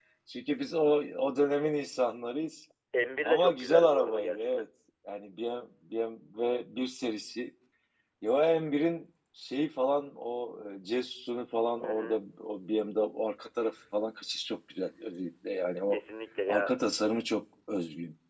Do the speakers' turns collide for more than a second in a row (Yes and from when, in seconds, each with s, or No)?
Yes, from 3.2 s